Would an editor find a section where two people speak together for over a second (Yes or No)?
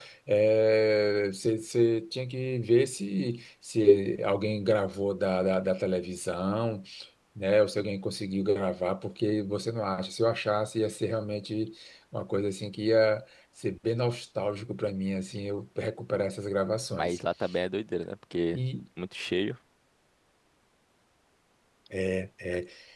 No